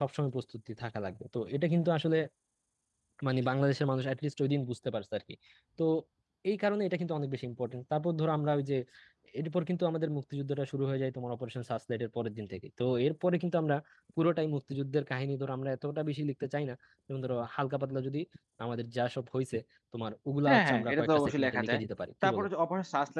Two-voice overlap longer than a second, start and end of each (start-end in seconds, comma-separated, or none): 20.5-21.8